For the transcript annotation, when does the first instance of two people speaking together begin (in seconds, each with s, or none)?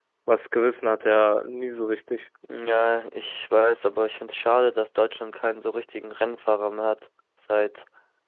none